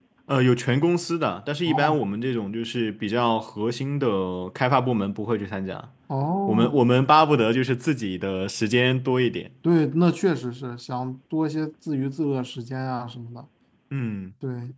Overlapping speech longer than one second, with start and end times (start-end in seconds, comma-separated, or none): none